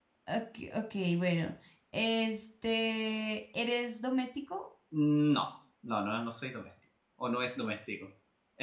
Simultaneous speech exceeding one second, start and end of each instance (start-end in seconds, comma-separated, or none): none